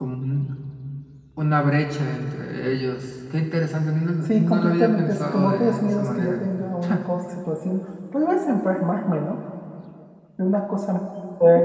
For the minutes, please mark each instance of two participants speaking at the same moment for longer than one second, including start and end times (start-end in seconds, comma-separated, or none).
4.3-6.4